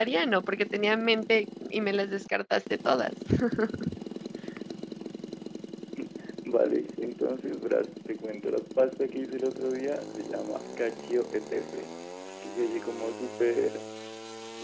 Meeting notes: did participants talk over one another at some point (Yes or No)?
No